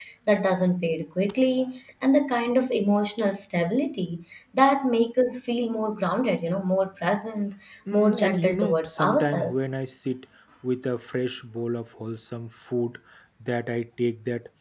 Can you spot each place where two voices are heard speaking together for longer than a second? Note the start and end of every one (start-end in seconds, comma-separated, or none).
7.9-9.6